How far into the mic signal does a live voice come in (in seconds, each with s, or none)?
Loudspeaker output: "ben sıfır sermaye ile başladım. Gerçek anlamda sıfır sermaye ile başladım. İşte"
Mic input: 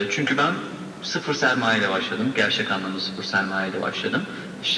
none